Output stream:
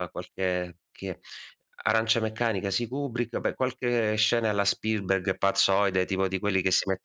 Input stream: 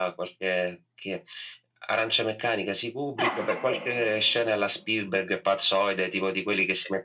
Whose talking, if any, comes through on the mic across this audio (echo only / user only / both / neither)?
both